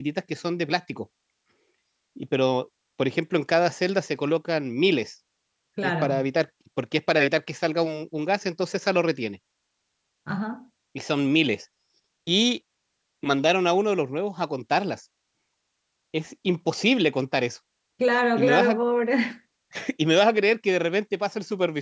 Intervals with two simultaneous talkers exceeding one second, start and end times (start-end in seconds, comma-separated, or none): none